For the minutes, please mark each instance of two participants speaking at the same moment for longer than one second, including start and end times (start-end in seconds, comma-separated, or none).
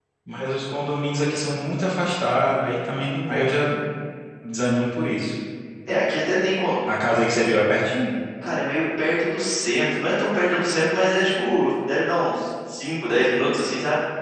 none